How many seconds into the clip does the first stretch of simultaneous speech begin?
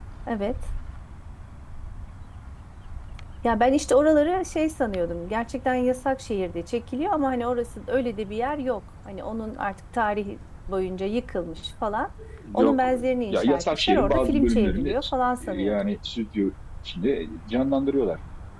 12.5 s

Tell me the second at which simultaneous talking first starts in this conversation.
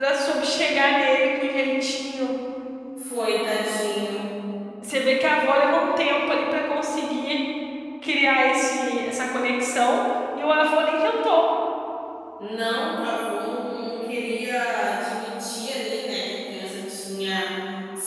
none

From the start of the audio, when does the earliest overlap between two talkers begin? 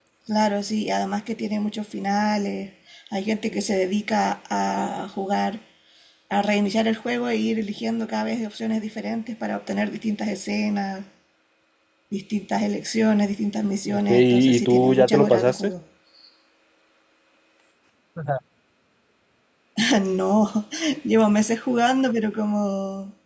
13.9 s

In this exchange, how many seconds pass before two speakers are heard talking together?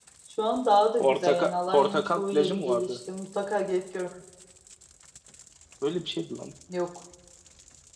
1.0 s

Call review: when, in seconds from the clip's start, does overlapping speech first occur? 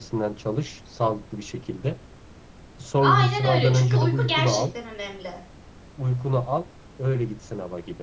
3.0 s

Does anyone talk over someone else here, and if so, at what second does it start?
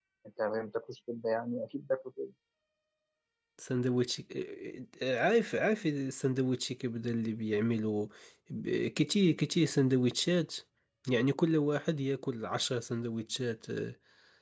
none

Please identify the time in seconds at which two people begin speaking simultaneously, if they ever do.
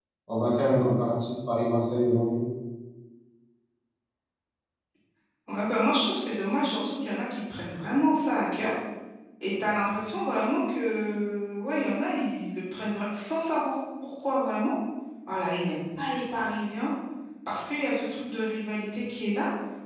none

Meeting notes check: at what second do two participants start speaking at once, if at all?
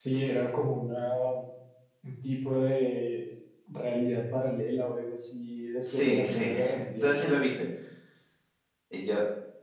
5.9 s

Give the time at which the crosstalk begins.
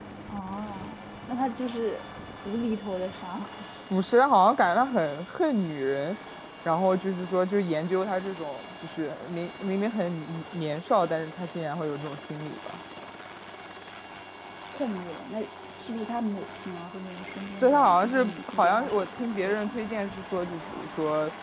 17.6 s

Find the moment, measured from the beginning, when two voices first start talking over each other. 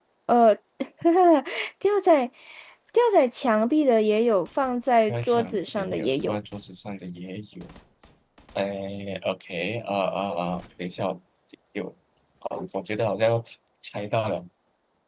5.1 s

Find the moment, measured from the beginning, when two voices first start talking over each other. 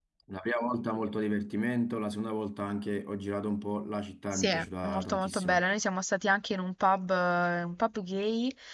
4.3 s

